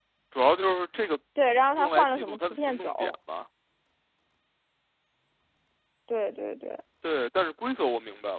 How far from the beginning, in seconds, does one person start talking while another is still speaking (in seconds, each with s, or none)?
1.8 s